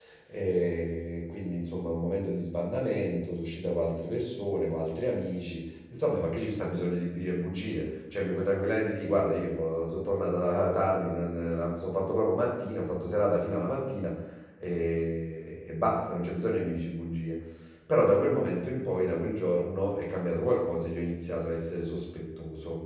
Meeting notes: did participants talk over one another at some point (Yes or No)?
No